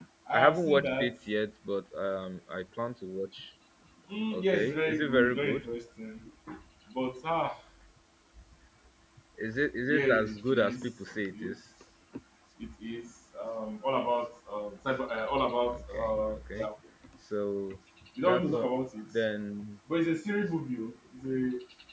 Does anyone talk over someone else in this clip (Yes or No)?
Yes